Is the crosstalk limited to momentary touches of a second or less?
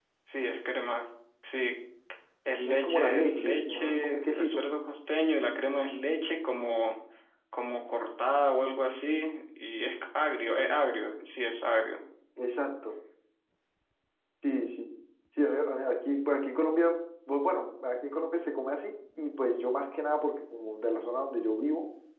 No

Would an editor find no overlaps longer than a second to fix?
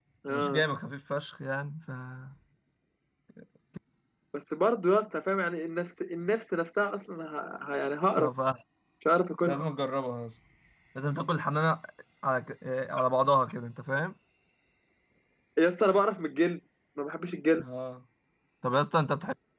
Yes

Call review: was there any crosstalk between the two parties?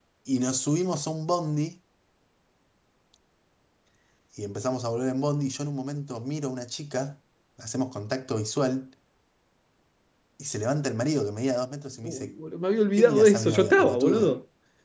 Yes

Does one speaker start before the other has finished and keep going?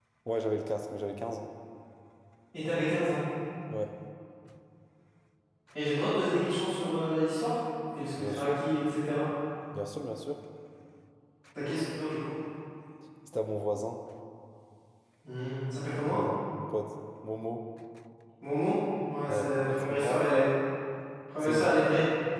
Yes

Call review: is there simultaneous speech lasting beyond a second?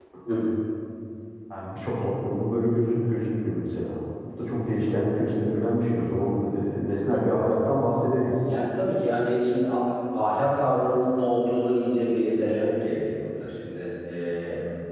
No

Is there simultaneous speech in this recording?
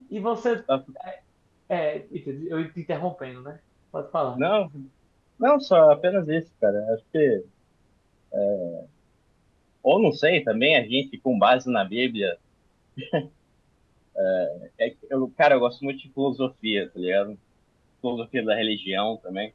No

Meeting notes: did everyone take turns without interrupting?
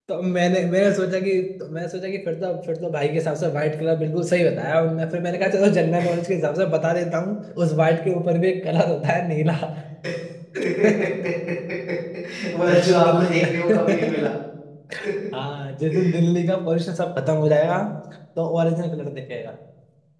No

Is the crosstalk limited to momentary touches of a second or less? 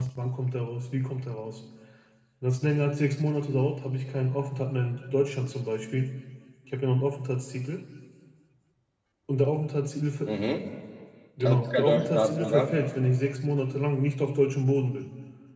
No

